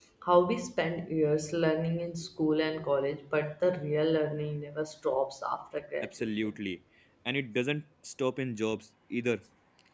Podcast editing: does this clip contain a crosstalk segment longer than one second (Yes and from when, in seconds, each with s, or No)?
No